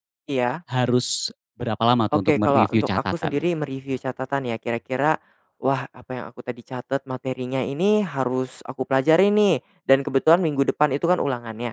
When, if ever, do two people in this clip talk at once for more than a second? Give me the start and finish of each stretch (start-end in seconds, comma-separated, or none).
2.1-3.4